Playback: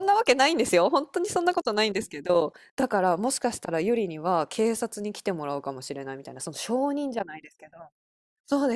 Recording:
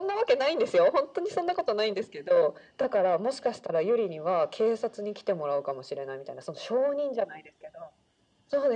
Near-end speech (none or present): none